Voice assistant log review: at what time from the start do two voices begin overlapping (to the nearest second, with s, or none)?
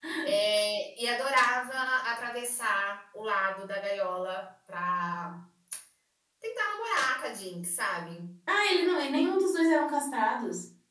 none